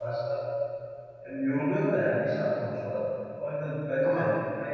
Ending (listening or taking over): listening